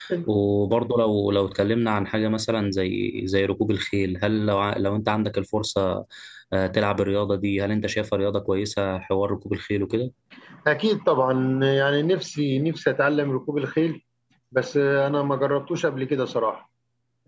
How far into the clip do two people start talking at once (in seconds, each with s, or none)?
none